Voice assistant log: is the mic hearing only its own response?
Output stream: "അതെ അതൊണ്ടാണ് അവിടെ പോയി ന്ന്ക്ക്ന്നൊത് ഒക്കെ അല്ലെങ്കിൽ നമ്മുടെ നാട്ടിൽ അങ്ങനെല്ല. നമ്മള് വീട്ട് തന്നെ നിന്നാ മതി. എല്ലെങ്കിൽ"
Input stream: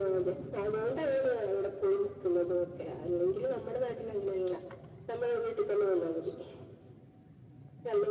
Yes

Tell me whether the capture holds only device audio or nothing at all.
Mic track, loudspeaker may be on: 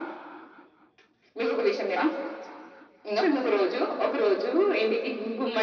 Yes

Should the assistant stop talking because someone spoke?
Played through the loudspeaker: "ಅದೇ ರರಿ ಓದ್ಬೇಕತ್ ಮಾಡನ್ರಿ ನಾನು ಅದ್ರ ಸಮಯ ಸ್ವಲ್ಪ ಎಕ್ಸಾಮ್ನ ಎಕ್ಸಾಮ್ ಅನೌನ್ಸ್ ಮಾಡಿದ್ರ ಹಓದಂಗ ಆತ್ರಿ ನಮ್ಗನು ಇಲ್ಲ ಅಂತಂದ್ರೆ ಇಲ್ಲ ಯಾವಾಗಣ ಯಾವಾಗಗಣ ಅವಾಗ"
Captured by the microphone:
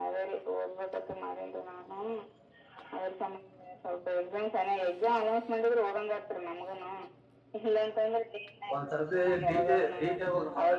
Yes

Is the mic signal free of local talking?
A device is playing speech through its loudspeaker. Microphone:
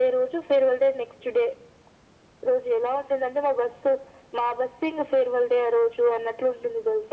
Yes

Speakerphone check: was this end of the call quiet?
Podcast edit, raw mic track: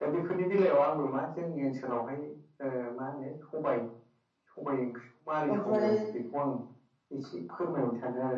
No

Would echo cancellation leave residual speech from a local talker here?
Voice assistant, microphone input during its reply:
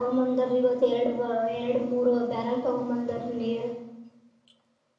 No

